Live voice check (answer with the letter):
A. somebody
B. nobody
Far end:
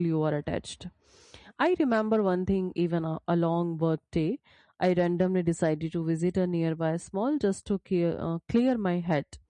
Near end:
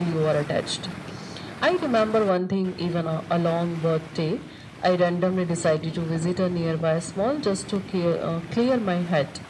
B